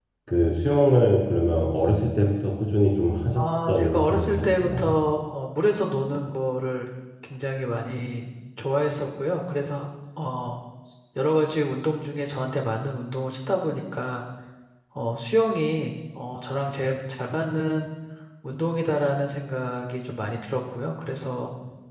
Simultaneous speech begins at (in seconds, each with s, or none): 3.4 s